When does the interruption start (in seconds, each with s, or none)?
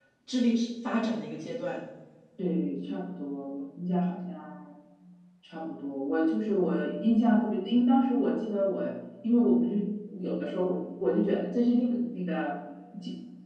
none